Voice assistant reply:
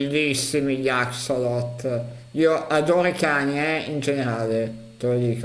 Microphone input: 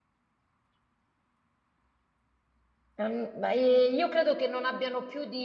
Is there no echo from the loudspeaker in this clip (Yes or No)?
Yes